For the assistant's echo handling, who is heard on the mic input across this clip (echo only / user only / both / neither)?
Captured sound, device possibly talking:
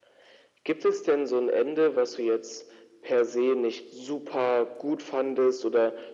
echo only